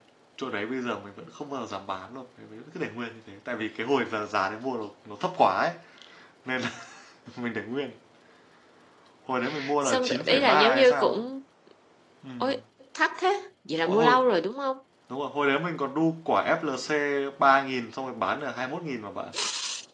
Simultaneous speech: Yes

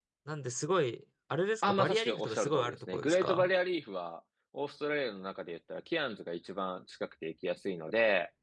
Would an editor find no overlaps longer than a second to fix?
No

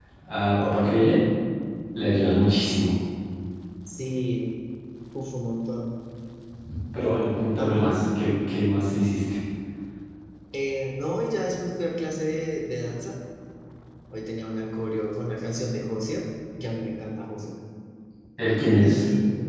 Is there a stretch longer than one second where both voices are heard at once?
No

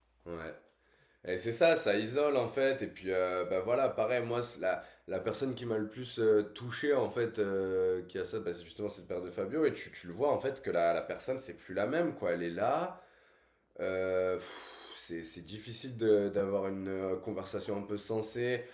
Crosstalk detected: No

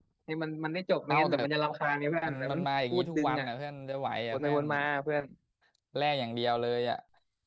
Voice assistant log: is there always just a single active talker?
No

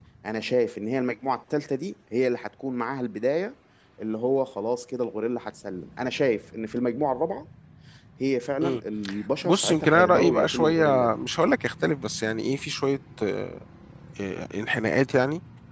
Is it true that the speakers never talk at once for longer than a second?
No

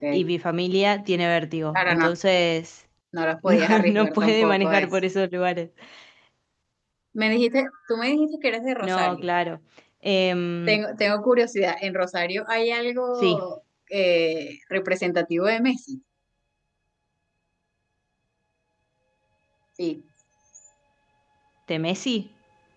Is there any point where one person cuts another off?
Yes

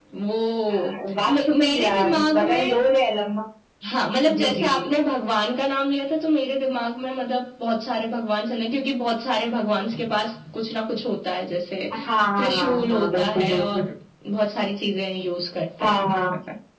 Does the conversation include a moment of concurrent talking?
Yes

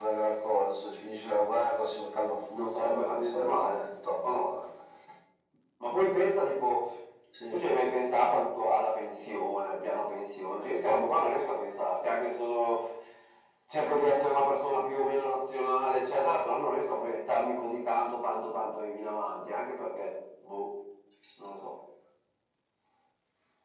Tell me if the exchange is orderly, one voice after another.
No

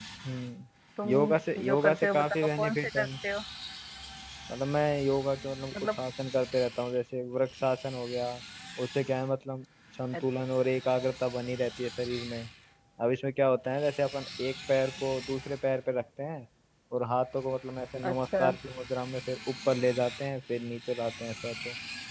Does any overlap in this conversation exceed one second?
Yes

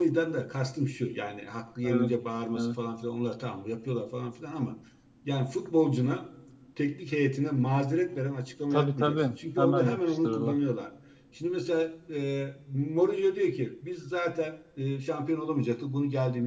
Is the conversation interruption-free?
No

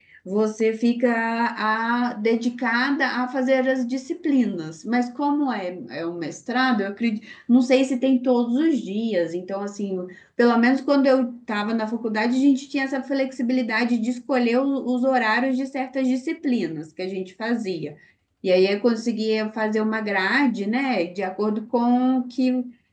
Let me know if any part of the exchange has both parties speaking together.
No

